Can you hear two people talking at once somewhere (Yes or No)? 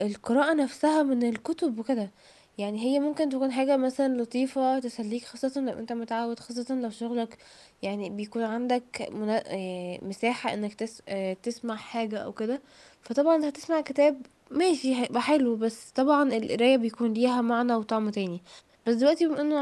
No